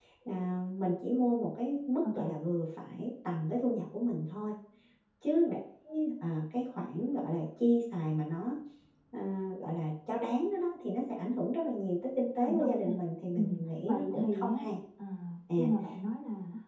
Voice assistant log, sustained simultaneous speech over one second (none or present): present